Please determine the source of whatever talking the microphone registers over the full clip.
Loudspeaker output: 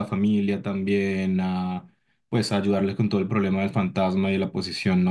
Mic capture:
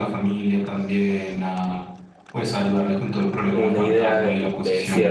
both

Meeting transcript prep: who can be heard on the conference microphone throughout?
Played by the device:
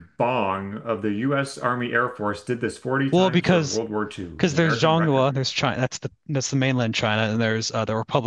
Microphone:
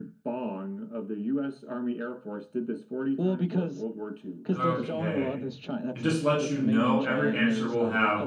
both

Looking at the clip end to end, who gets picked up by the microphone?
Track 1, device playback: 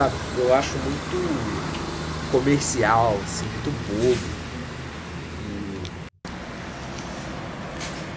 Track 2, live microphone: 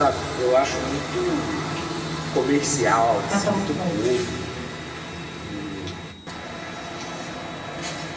both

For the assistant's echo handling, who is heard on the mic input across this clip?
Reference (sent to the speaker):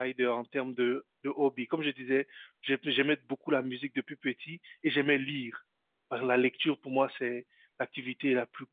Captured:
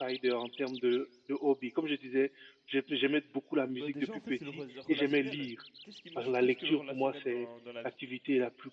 both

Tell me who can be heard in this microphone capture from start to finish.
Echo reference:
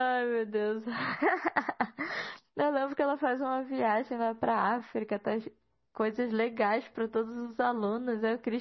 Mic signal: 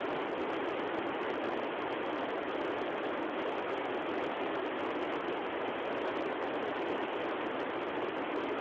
neither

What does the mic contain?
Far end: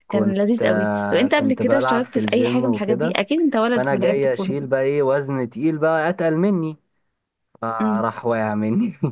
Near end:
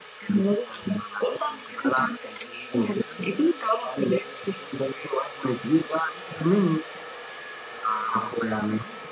echo only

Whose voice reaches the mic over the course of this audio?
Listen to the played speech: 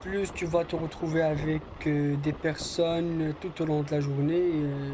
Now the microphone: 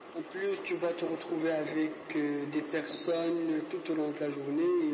echo only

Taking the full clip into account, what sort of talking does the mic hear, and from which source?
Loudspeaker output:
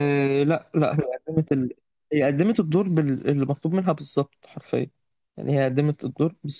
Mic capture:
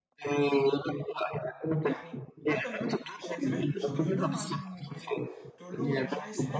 both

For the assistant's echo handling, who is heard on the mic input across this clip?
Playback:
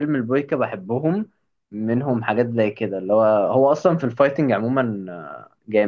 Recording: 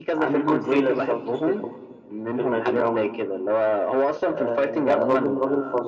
both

